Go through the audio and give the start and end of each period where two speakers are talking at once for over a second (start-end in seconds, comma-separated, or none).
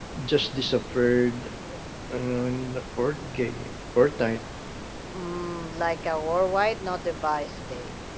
none